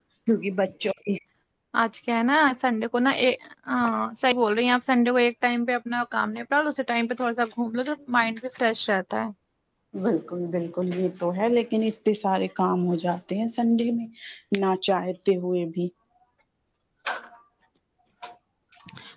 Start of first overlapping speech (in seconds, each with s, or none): none